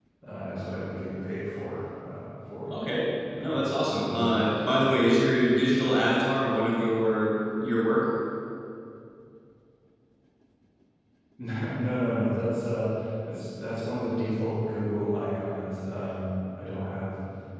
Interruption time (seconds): 3.4 s

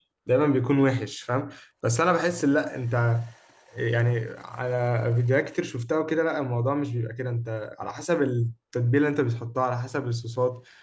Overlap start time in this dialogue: none

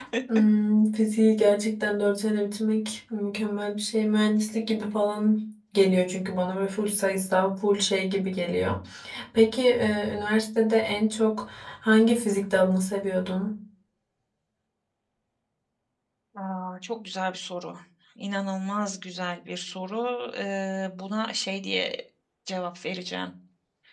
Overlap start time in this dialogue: none

